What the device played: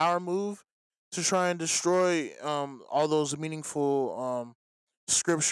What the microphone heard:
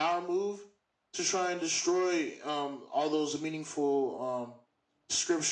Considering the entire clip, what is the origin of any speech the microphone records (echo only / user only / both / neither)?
echo only